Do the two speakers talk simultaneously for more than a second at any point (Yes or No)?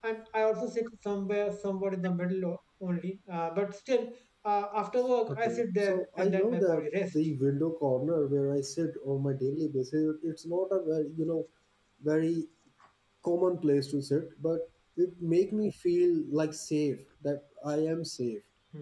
Yes